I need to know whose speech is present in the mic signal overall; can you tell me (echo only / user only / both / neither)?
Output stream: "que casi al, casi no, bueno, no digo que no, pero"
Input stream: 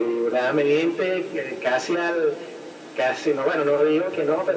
echo only